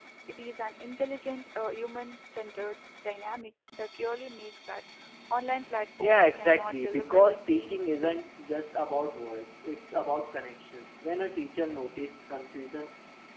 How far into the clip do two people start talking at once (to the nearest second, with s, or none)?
6 s